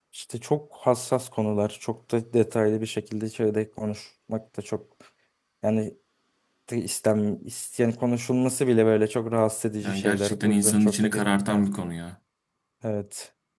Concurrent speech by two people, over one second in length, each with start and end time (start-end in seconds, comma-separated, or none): 9.8-11.6